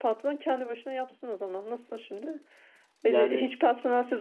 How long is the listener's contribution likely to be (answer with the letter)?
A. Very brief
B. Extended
A